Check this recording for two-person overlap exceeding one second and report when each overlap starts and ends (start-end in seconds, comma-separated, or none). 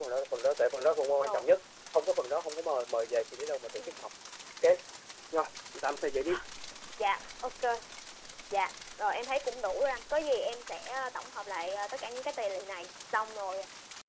none